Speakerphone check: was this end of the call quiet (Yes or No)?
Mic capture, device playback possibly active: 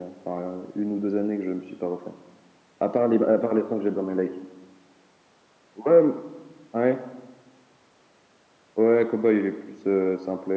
Yes